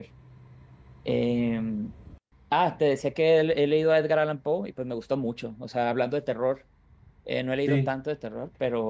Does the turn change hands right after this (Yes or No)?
No